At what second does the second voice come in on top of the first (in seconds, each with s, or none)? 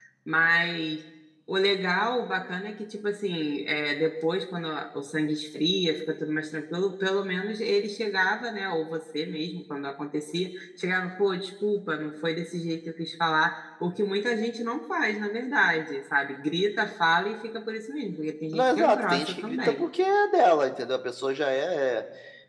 18.5 s